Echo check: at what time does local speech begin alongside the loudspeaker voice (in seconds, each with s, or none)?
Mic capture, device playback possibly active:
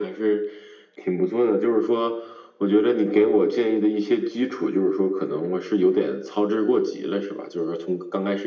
none